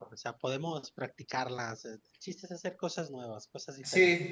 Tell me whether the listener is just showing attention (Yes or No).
No